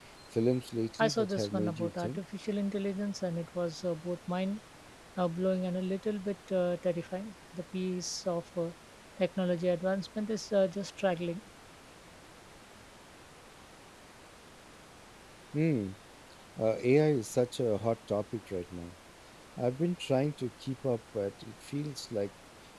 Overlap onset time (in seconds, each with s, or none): 1.0 s